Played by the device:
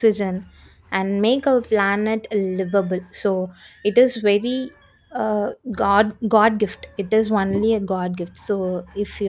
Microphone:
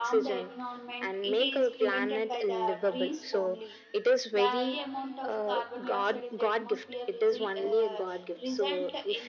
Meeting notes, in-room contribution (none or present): present